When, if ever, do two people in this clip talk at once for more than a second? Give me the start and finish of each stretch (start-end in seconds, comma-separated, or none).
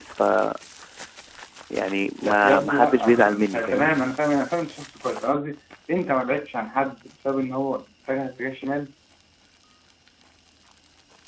2.2-3.9